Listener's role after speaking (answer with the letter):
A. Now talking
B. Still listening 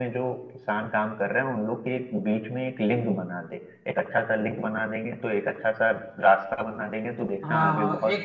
A